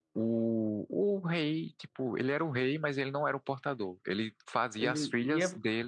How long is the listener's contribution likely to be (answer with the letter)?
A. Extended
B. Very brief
B